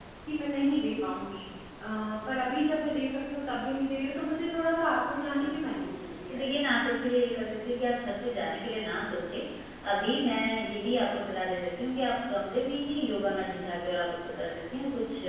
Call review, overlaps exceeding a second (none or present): none